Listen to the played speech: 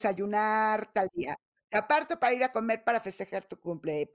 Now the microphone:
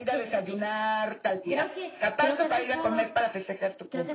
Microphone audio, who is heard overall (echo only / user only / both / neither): both